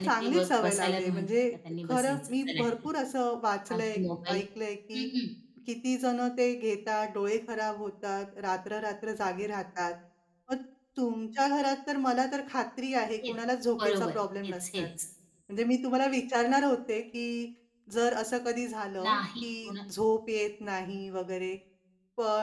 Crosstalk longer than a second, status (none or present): present